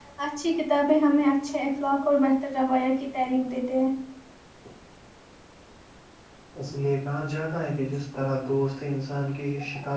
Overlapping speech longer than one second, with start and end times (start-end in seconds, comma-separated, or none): none